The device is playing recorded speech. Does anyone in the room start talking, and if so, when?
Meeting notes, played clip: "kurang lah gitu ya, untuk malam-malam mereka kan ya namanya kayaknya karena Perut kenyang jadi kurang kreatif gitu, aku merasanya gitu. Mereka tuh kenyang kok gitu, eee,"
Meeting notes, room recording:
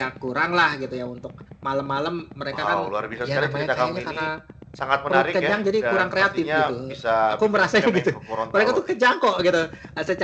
2 s

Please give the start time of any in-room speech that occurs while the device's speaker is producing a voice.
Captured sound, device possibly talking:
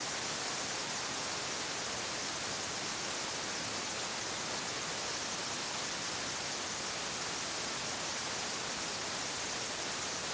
none

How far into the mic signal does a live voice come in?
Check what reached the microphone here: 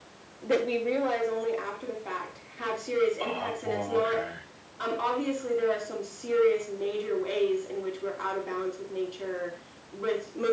3 s

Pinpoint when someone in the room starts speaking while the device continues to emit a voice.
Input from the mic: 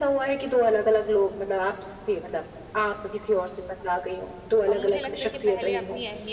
5 s

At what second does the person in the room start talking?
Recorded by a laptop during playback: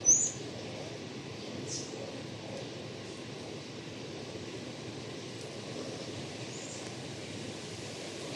none

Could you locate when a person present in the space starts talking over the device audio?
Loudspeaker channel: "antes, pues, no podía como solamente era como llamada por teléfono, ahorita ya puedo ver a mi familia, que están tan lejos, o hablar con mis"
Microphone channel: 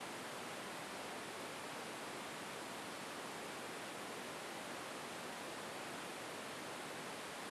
none

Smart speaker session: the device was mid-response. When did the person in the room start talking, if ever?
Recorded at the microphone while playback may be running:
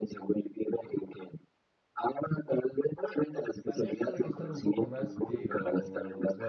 4 s

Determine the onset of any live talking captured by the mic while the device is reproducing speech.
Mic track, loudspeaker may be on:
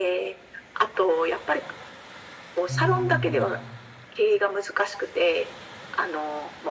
3 s

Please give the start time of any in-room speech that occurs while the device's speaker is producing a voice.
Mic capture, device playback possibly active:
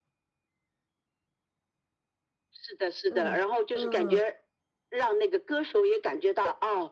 3 s

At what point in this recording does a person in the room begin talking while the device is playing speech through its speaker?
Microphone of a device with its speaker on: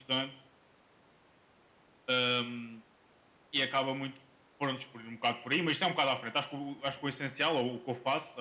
none

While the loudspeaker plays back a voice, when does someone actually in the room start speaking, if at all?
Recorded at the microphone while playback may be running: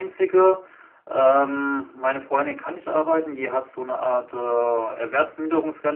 none

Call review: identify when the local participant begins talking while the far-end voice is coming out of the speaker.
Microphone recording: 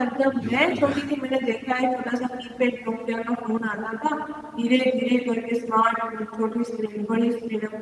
0 s

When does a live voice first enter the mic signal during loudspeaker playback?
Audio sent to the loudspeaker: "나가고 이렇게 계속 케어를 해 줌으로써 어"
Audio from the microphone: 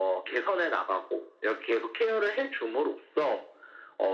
none

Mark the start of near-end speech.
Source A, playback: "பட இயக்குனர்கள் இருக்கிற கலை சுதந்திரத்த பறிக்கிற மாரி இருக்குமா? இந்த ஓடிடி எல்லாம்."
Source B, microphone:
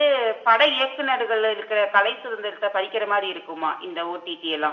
none

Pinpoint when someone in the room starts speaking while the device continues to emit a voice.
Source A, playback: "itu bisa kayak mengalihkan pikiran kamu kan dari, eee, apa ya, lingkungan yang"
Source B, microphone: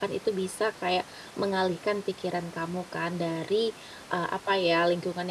none

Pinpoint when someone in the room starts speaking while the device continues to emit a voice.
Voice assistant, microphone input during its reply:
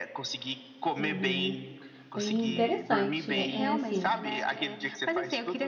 1 s

